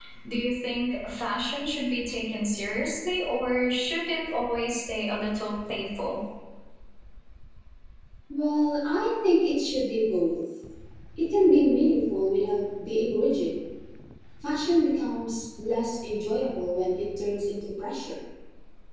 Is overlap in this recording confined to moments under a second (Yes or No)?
Yes